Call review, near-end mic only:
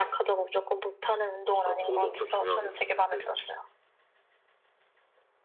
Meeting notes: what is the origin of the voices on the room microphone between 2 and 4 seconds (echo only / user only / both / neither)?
both